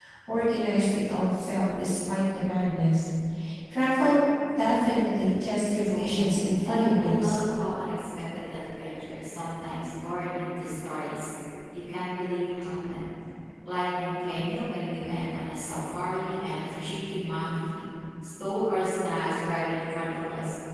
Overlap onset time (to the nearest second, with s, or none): 6 s